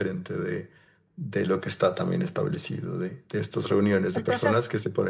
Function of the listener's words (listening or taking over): listening